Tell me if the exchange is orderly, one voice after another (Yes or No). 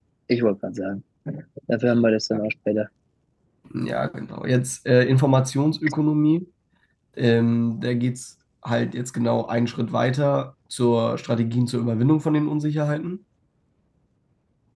Yes